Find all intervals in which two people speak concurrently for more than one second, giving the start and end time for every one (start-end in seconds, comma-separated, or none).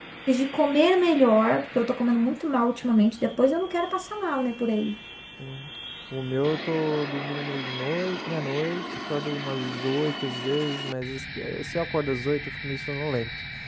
none